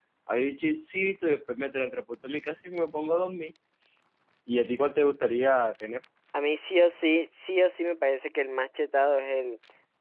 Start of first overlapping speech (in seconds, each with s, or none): none